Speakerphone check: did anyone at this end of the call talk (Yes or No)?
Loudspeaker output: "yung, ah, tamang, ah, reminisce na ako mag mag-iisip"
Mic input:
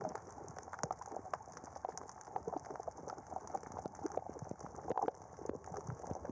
No